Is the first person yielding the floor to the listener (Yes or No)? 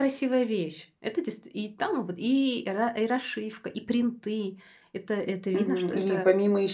Yes